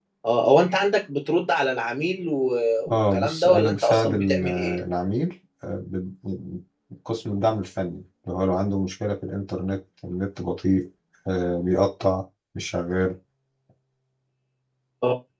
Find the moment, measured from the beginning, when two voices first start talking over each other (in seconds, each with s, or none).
2.9 s